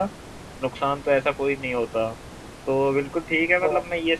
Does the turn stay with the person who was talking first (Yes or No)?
Yes